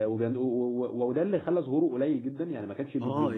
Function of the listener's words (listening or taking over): taking over